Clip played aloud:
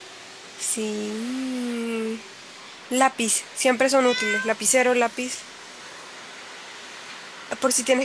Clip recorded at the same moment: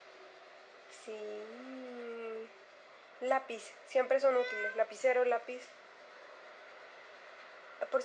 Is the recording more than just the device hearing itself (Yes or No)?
No